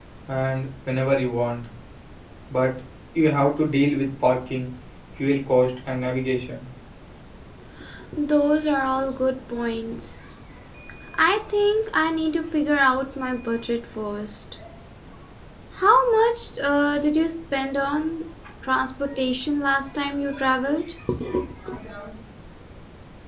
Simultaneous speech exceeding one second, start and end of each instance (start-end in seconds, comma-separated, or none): none